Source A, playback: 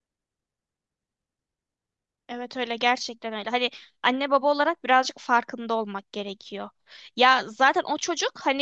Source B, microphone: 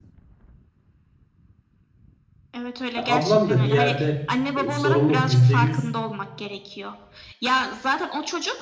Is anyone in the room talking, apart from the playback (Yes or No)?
Yes